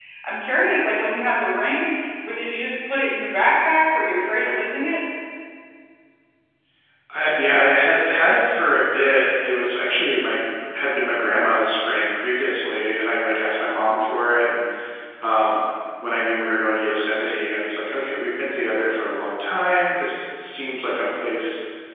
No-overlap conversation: Yes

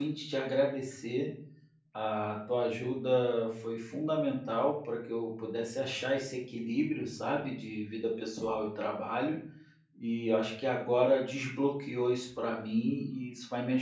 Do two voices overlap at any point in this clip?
No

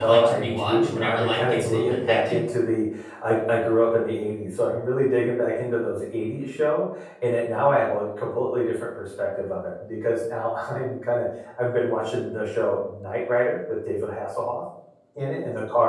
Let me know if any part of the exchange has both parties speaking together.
Yes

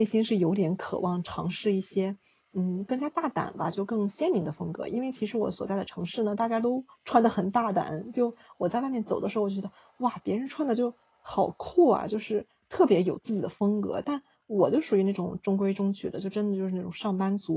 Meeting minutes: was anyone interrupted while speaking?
No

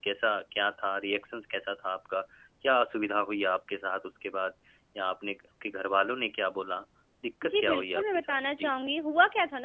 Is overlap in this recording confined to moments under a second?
No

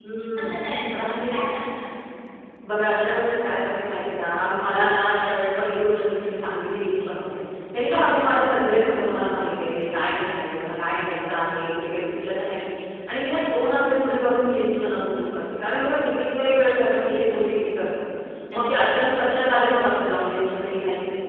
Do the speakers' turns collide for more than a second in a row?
No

